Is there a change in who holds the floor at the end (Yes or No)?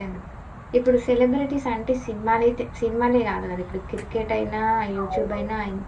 No